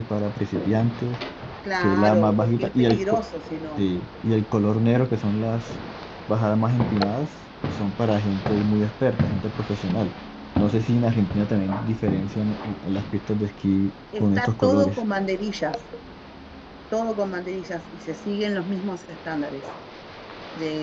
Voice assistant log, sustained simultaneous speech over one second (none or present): present